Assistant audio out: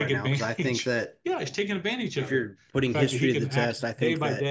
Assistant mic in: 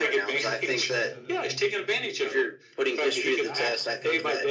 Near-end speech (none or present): present